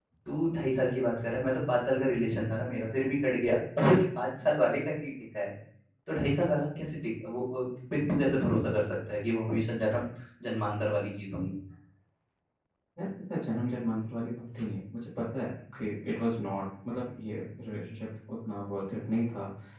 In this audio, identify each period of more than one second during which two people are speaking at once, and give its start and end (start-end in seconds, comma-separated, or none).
none